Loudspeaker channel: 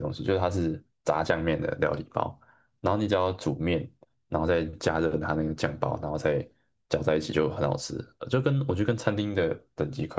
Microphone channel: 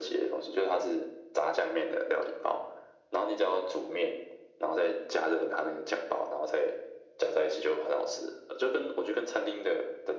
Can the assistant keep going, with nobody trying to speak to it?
Yes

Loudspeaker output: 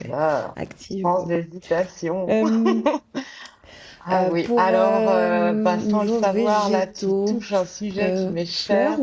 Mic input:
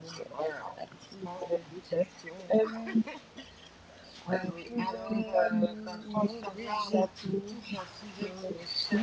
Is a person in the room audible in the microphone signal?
No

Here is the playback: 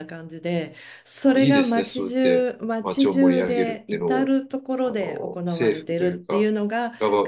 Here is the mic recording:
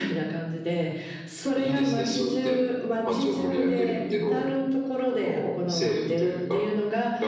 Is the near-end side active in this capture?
No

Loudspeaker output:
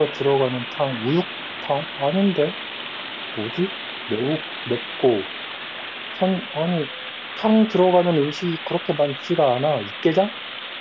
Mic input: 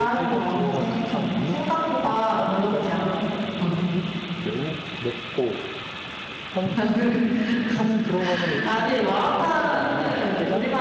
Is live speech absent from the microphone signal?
No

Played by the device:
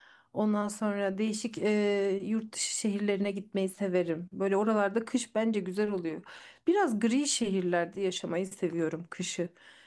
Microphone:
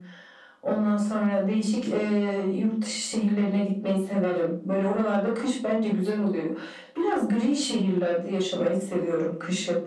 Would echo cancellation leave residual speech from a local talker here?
No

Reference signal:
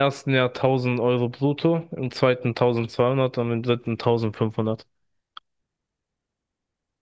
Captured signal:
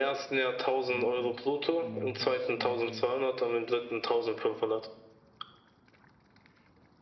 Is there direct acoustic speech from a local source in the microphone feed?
Yes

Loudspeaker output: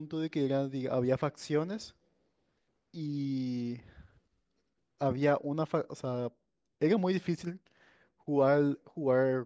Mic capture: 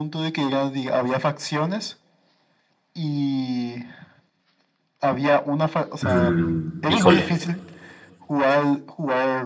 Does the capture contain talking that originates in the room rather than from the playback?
Yes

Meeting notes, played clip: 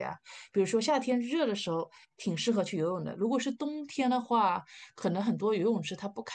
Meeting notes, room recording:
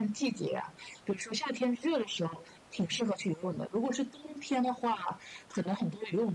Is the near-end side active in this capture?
No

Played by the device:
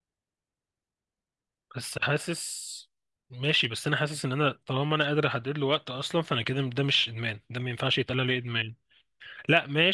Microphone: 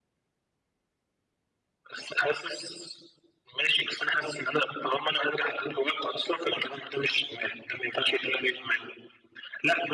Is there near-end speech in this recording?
No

